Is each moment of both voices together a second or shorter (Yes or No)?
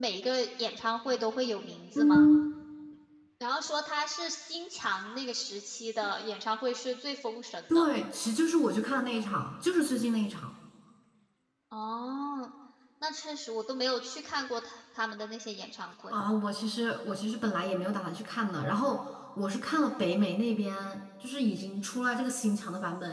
Yes